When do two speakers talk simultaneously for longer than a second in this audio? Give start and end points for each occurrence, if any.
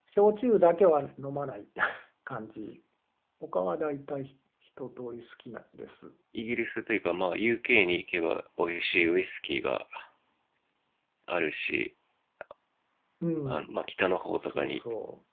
none

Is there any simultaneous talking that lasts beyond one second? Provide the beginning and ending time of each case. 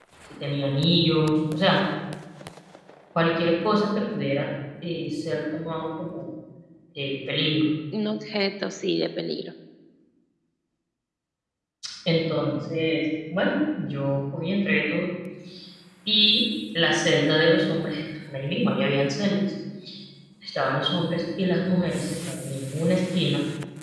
none

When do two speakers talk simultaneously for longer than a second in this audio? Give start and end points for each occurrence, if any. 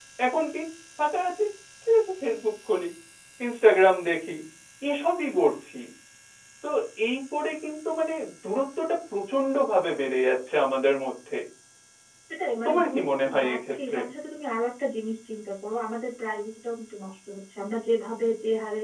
12.7-14.0

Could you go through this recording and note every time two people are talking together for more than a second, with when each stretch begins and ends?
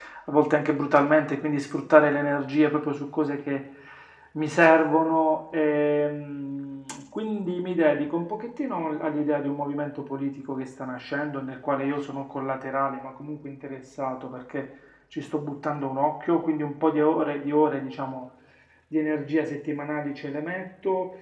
none

